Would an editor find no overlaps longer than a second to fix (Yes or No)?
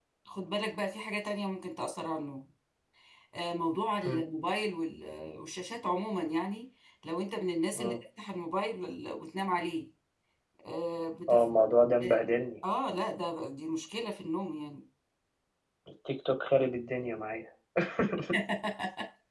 Yes